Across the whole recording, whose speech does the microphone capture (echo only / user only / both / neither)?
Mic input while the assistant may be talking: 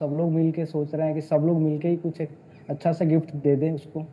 echo only